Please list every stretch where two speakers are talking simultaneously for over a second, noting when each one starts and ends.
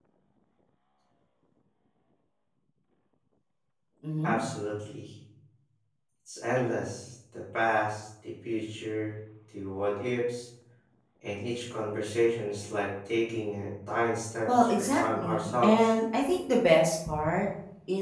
14.6-15.9

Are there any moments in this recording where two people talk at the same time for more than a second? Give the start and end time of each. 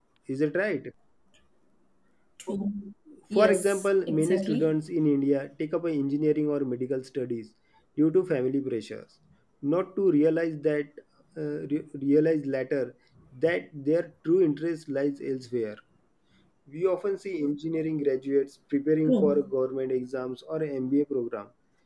3.4-4.8

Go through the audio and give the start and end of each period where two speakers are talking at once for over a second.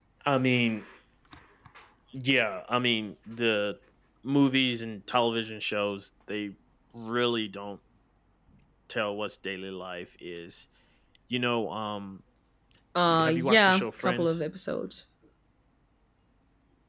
13.1-14.4

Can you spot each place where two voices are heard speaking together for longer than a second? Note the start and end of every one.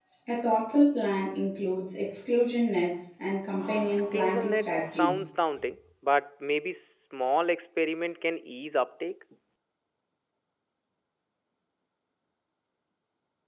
3.9-5.3

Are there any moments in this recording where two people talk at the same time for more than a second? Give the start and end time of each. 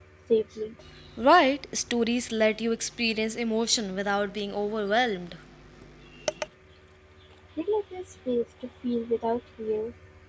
none

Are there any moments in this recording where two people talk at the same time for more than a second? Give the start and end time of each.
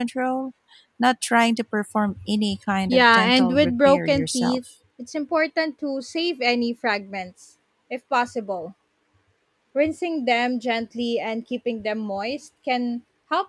2.9-4.6

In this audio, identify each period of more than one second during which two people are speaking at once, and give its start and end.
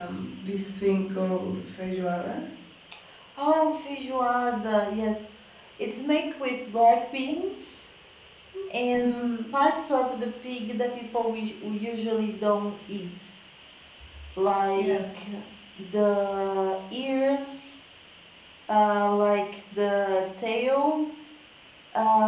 none

